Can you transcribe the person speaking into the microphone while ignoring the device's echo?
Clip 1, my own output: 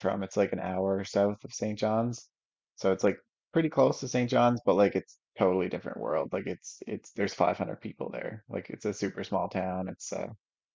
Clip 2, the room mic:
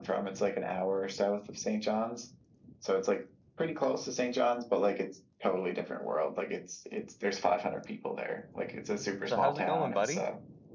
So how's it going, buddy?

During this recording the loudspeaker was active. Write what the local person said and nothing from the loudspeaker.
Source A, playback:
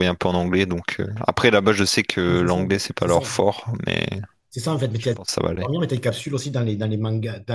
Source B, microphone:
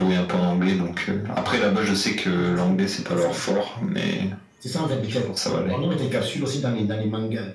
none

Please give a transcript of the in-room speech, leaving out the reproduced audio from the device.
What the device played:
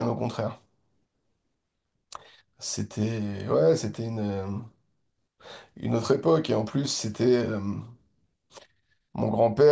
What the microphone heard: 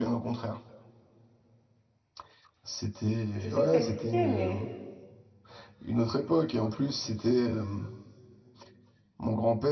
je sais que ça existait, mais...

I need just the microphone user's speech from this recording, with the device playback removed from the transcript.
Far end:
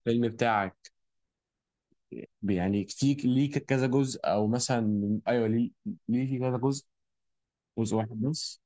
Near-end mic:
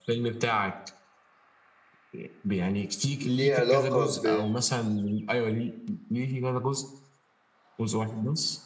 ليه علاقه ب

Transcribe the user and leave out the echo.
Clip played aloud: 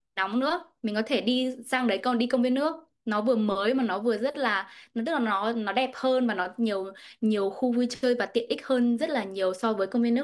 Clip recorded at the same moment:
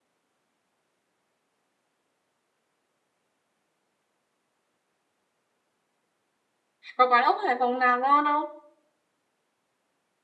Có quán ốc Hải Phòng nào ngon không?

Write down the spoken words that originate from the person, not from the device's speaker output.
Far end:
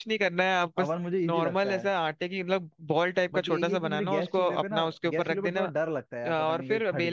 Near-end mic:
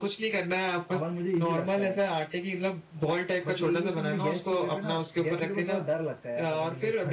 none

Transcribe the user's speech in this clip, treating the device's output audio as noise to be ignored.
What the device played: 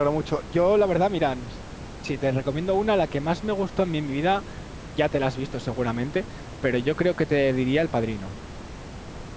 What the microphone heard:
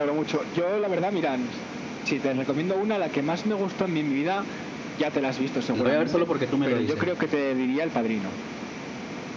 La voy a ver solo porque tú me lo dices.

